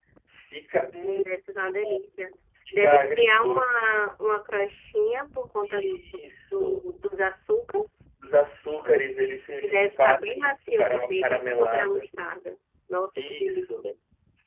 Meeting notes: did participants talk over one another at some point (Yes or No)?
Yes